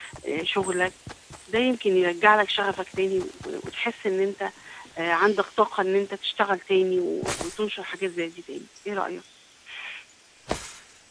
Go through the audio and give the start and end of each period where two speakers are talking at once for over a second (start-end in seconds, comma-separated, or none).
none